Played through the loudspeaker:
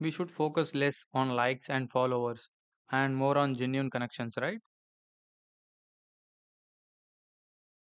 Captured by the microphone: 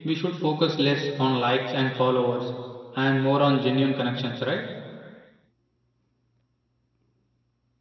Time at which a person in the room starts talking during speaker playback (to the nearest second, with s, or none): none